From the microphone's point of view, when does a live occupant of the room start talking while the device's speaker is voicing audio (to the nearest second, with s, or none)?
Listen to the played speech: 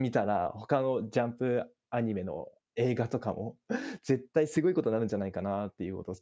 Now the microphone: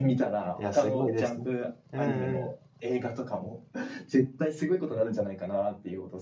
1 s